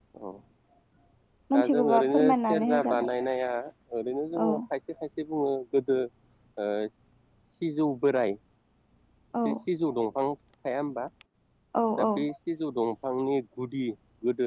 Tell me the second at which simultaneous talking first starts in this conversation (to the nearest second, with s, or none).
2 s